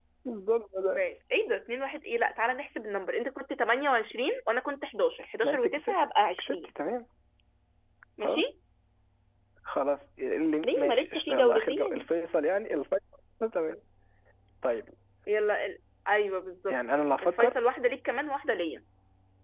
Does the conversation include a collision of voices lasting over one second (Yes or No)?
Yes